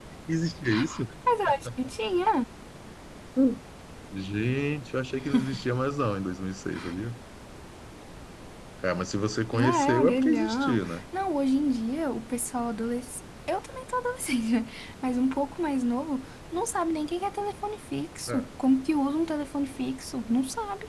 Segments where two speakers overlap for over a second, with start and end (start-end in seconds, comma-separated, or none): 9.5-11.0